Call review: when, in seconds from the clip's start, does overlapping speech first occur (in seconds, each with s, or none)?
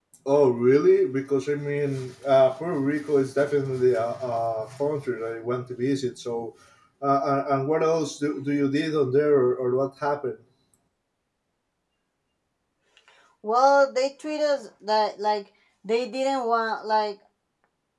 none